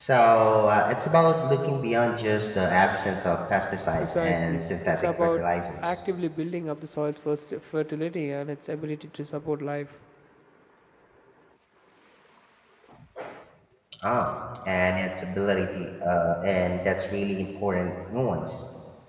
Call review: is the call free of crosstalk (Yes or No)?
No